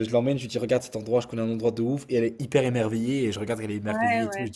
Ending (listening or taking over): taking over